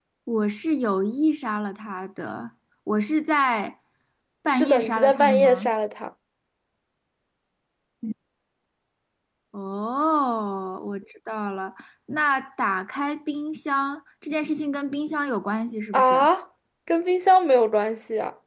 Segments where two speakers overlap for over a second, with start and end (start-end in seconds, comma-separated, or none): 4.5-5.7